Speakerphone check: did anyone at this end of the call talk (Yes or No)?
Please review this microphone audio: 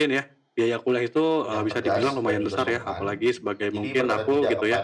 Yes